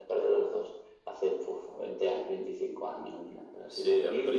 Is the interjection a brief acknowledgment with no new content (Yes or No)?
No